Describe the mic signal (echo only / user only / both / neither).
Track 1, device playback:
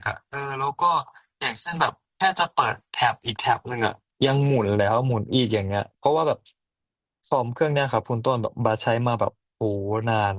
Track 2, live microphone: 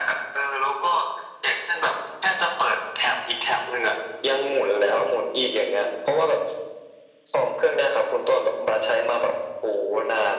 echo only